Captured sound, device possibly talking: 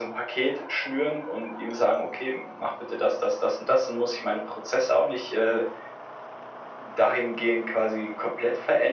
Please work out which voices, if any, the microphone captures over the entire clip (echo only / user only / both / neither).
echo only